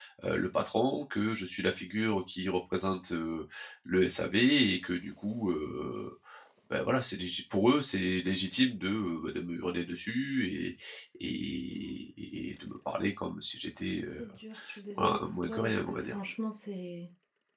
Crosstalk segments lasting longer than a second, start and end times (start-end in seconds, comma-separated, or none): 15.0-16.2